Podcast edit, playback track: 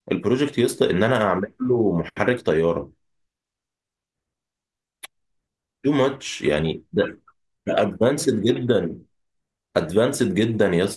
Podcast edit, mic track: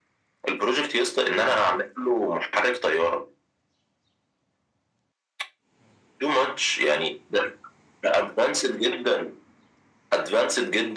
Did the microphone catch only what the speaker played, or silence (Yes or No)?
Yes